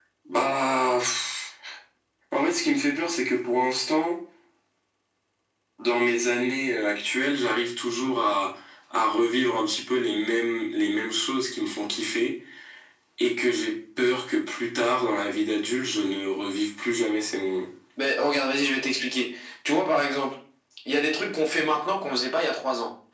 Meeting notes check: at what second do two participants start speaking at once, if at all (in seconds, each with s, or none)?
none